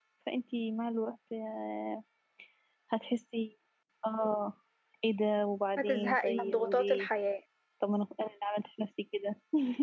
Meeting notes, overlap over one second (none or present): present